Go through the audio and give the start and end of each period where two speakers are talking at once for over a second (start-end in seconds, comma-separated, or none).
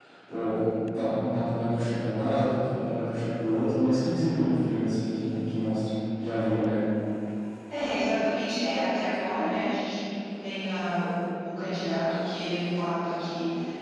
none